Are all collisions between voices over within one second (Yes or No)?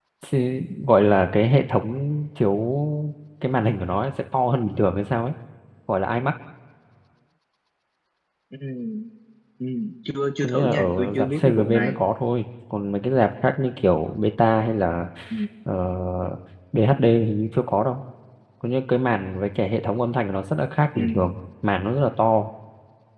No